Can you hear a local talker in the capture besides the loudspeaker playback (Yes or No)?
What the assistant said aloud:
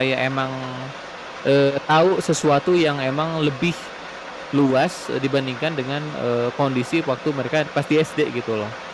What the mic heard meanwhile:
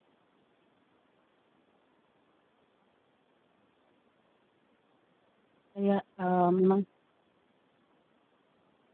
Yes